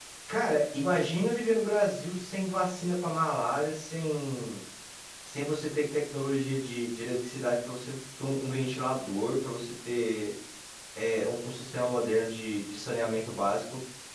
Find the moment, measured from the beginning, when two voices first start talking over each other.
none

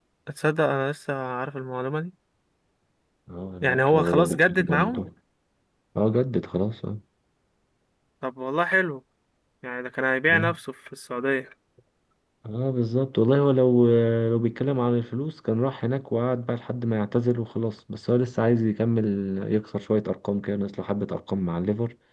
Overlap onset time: 3.6 s

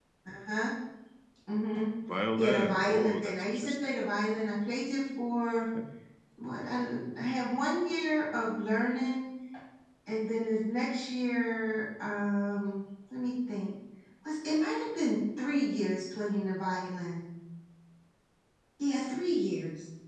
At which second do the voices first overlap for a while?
2.4 s

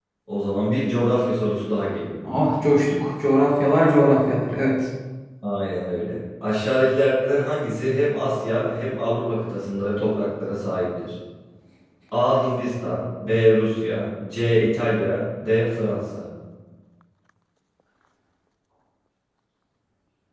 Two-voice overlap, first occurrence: none

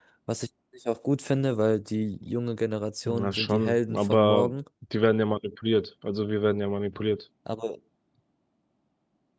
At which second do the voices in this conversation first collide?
3.0 s

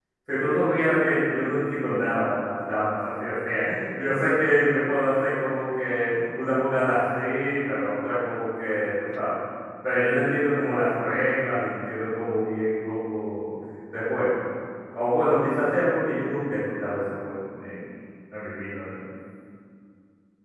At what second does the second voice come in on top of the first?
none

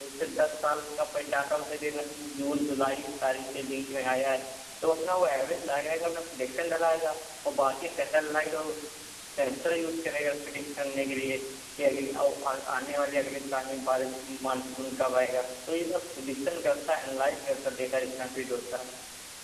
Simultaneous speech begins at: none

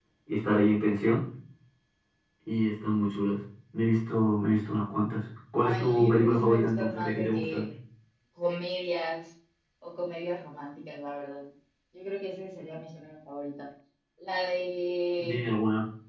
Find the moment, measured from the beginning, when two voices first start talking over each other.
5.6 s

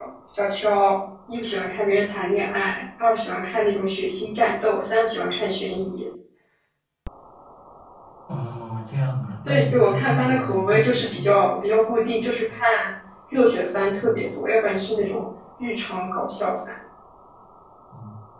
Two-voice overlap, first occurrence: 9.5 s

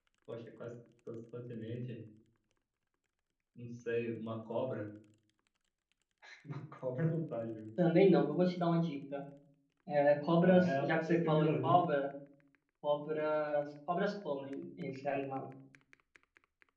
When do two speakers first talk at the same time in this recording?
10.4 s

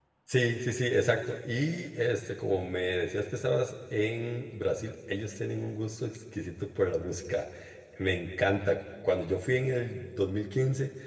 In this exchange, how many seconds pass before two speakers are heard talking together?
none

